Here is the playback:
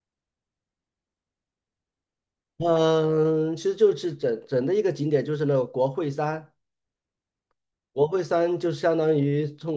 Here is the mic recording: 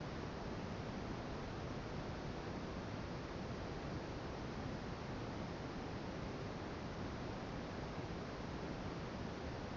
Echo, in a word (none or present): none